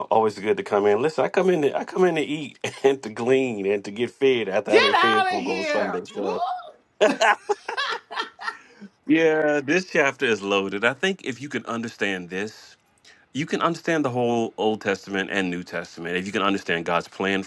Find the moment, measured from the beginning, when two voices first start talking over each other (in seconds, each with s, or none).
4.7 s